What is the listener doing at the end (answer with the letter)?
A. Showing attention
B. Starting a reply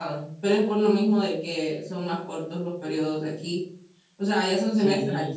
A